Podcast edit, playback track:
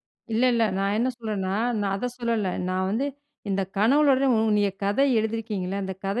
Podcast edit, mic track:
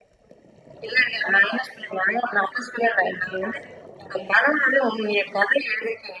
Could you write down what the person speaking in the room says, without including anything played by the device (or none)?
none